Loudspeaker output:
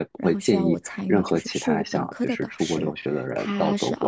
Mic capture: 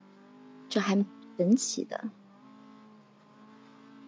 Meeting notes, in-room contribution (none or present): present